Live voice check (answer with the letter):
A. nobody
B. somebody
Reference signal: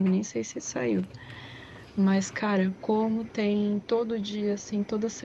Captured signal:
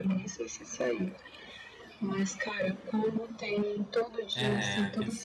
B